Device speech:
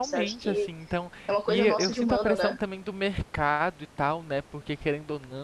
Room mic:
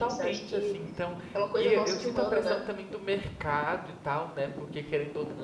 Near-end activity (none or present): none